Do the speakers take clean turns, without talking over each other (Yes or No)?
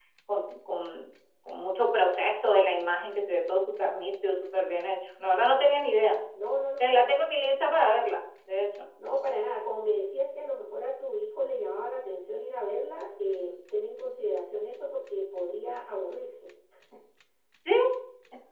Yes